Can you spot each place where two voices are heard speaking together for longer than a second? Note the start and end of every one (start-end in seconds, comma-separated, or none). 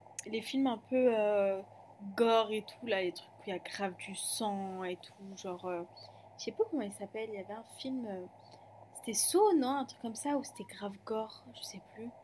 none